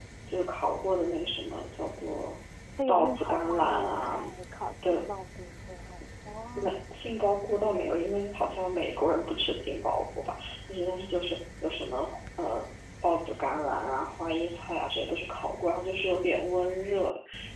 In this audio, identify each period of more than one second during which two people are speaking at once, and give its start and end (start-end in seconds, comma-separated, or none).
2.9-4.2